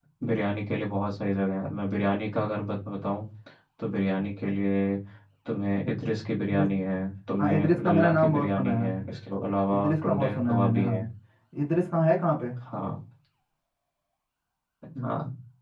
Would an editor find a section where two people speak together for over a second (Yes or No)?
Yes